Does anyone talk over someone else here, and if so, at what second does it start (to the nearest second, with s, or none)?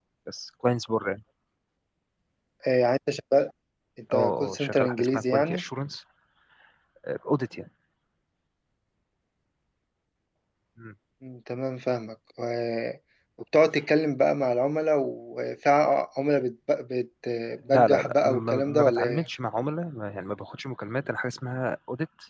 4 s